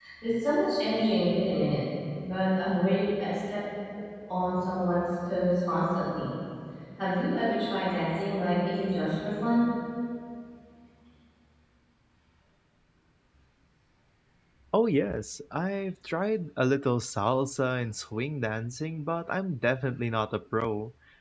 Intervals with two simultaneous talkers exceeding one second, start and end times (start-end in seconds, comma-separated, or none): none